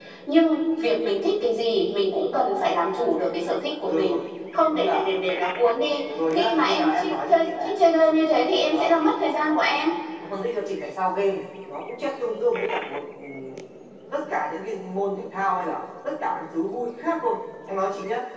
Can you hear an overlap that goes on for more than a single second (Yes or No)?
Yes